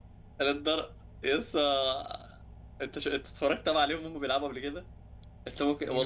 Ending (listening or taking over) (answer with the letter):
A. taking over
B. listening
B